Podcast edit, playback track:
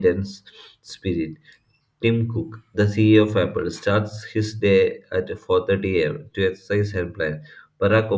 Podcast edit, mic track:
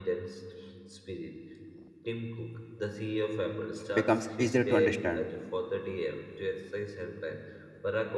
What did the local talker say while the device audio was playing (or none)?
becomes easier to understand.